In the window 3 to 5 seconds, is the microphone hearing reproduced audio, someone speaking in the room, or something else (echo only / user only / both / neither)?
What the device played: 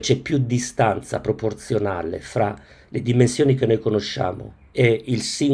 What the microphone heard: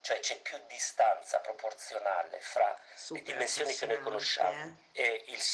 both